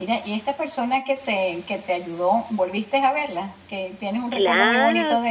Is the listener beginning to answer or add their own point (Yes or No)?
Yes